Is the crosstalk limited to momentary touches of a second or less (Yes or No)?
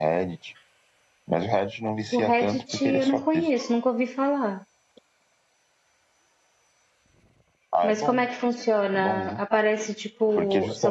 No